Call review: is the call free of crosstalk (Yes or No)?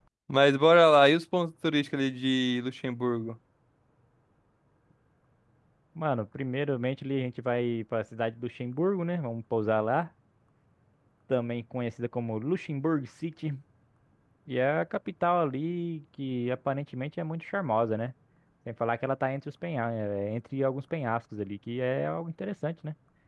Yes